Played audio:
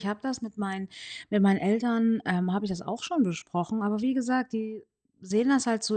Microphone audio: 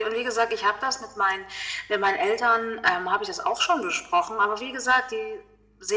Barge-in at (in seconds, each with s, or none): none